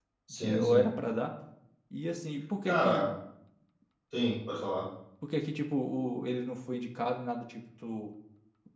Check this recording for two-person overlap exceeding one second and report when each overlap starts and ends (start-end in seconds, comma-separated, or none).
none